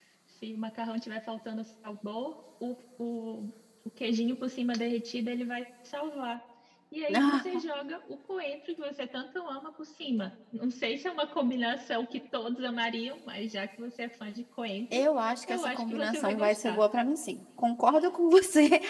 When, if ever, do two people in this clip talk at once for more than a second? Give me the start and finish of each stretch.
15.5-16.8

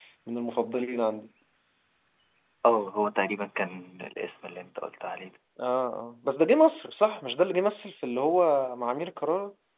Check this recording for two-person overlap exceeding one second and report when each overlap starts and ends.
none

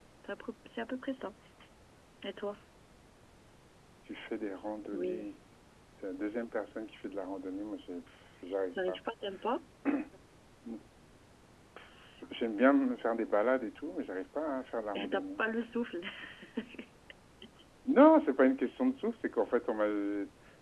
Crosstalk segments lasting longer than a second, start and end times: none

